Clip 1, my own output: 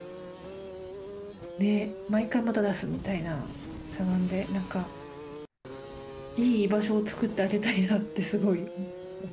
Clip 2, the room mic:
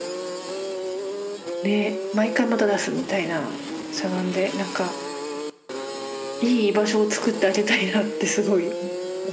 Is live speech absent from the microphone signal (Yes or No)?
Yes